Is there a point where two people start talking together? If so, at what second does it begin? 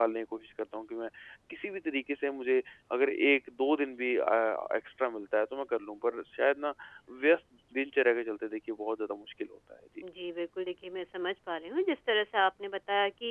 none

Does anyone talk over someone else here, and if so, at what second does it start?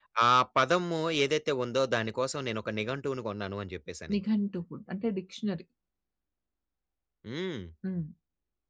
none

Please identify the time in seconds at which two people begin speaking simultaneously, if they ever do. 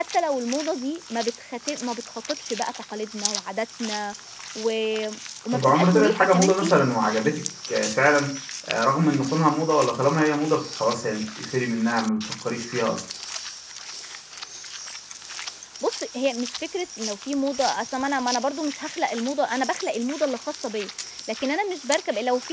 5.5 s

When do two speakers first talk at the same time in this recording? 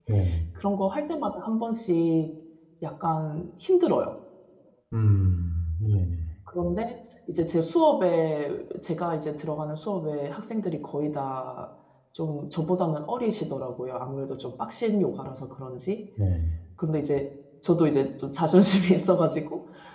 none

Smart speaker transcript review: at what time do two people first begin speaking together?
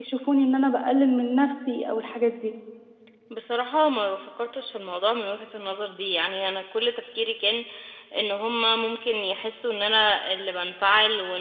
none

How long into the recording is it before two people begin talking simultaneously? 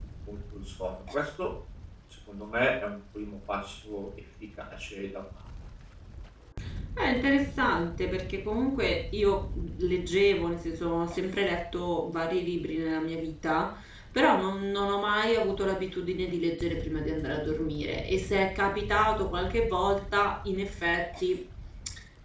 none

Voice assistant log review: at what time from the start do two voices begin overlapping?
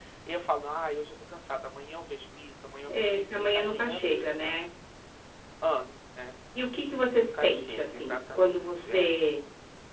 2.9 s

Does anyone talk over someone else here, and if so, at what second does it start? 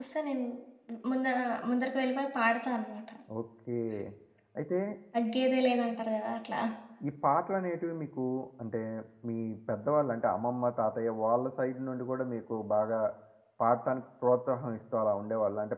none

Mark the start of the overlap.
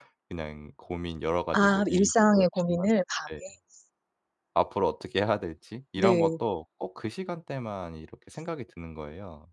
1.5 s

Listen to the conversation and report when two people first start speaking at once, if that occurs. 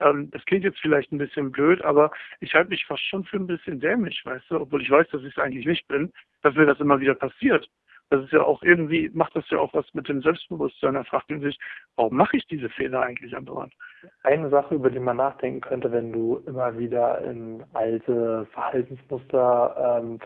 none

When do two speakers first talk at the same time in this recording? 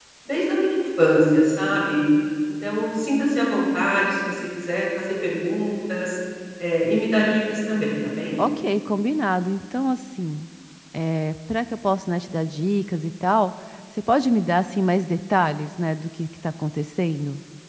none

